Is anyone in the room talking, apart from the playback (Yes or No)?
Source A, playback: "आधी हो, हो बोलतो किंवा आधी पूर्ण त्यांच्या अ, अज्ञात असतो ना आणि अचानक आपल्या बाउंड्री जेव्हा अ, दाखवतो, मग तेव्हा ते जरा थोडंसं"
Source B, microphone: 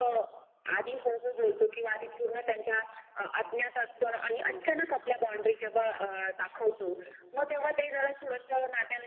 Yes